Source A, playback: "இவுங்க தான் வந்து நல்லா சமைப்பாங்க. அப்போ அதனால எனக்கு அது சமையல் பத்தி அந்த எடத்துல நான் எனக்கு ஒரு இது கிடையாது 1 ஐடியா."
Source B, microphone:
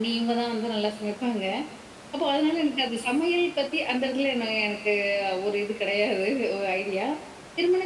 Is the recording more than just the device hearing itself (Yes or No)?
No